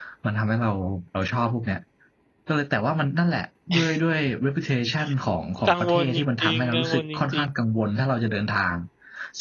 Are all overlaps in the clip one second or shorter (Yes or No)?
No